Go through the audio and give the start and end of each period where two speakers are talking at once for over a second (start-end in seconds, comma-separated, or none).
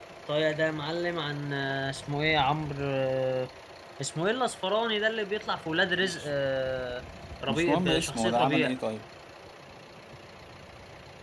7.5-8.7